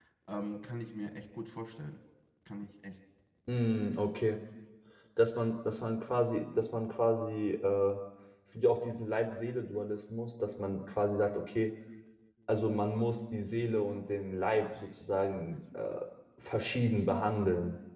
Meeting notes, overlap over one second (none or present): none